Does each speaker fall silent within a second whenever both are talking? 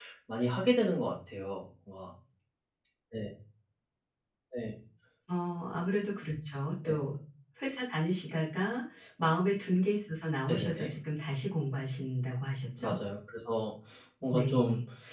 Yes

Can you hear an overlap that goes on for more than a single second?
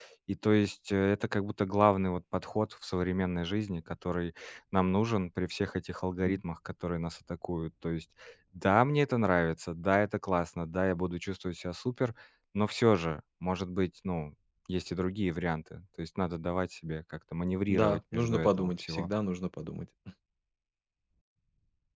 Yes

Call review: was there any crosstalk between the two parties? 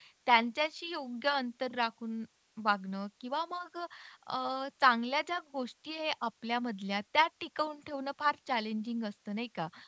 No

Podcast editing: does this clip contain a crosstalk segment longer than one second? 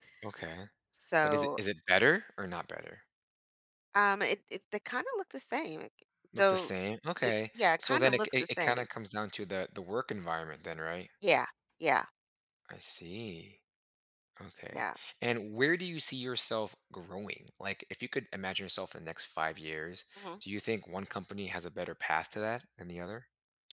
Yes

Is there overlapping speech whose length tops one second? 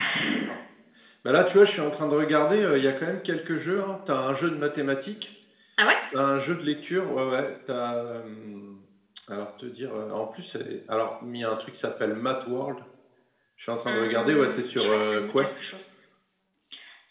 Yes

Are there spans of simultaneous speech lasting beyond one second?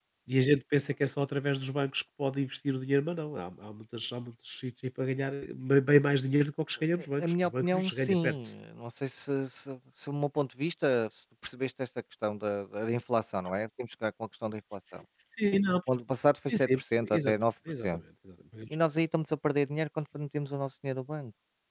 Yes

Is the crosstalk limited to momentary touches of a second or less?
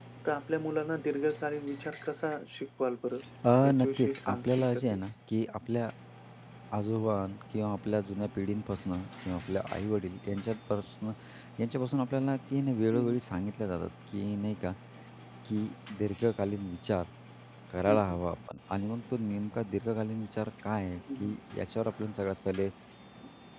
No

